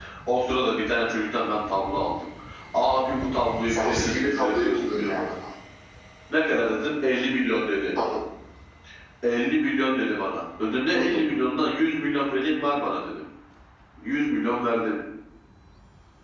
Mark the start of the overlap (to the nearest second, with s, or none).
4 s